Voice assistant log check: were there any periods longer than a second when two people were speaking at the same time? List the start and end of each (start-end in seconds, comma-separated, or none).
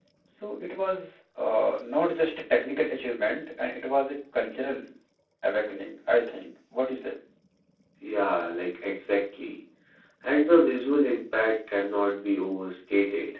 none